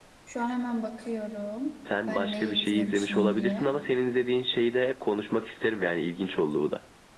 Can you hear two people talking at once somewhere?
Yes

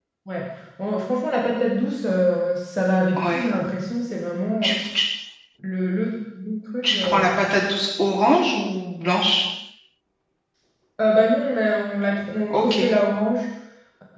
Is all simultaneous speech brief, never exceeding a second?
Yes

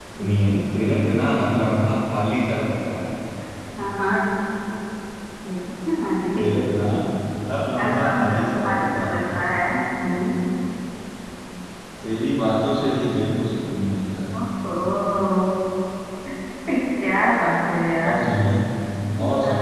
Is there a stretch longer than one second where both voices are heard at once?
Yes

